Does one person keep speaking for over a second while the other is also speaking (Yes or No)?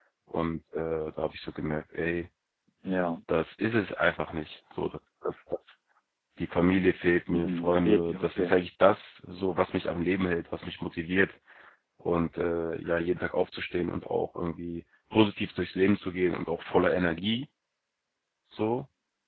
Yes